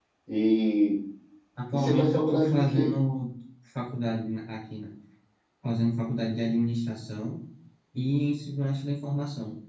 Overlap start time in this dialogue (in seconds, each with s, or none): 1.7 s